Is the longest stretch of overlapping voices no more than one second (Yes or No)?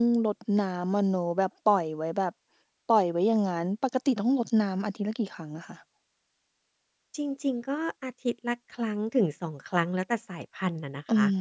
Yes